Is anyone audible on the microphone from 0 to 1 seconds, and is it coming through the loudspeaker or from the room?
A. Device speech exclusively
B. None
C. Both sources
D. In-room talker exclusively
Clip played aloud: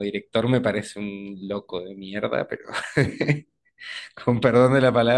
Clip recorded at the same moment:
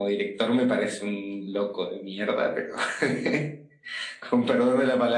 A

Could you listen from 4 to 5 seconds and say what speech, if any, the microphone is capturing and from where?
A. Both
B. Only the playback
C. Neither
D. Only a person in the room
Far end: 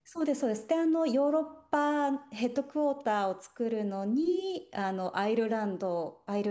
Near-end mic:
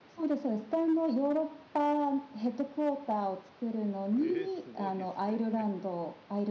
A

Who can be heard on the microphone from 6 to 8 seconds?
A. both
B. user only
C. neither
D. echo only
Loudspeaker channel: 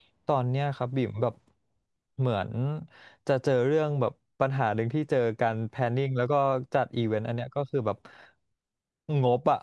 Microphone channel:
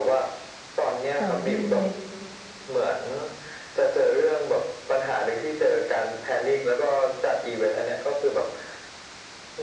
D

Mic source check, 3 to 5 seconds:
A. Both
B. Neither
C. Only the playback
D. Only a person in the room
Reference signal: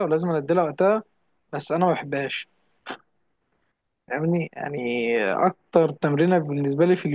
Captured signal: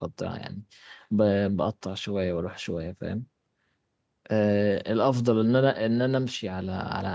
D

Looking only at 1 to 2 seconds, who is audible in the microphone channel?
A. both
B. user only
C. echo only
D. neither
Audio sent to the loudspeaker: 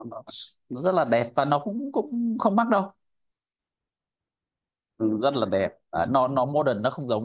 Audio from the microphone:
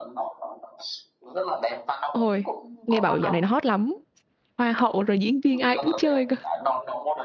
C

